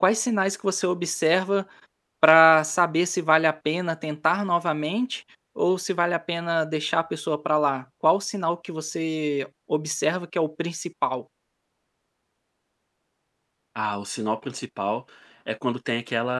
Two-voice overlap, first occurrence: none

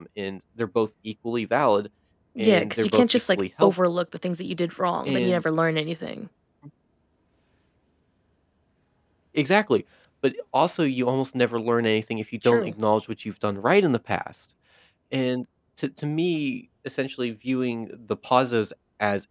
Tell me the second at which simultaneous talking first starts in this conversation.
2.4 s

